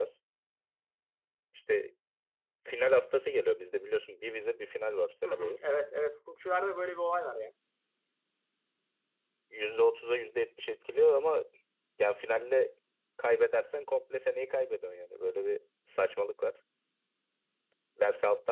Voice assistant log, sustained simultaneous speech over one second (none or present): none